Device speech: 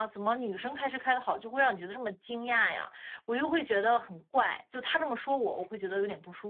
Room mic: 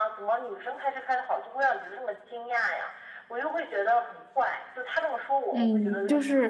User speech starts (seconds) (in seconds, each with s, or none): 5.5 s